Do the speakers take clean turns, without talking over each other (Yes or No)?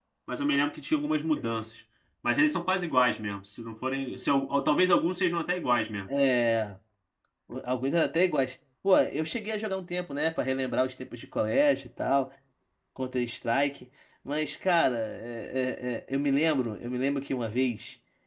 Yes